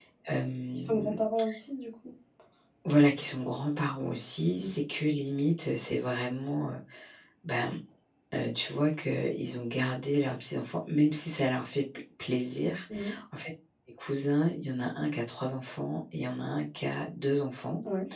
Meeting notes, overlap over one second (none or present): none